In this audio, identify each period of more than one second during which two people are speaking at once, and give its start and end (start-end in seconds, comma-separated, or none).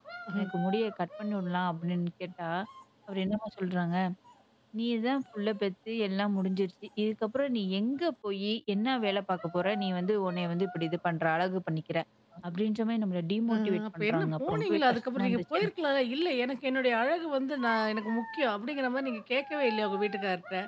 13.5-15.7